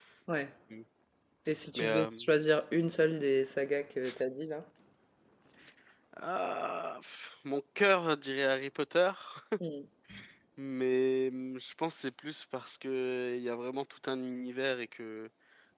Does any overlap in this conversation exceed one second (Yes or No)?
No